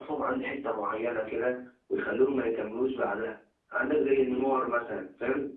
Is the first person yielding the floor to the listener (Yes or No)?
No